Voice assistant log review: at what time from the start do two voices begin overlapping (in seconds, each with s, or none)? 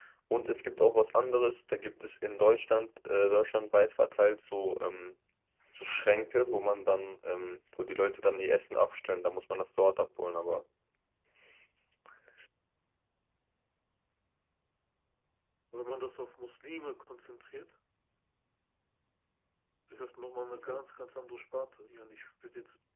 none